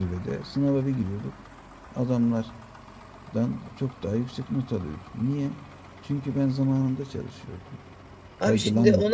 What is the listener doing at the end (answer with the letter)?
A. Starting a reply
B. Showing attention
A